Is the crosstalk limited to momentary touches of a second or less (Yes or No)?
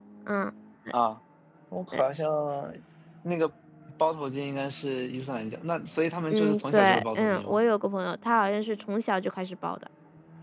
No